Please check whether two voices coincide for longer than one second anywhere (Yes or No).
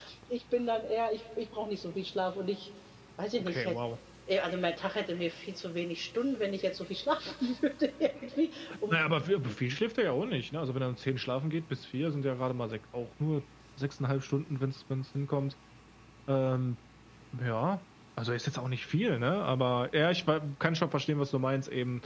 No